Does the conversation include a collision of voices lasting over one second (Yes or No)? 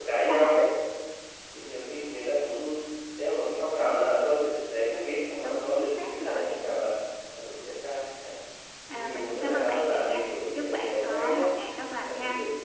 Yes